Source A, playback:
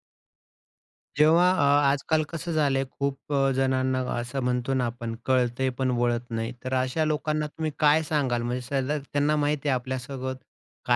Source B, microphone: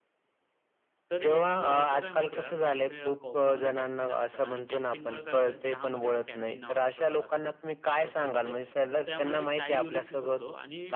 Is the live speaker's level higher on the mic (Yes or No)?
No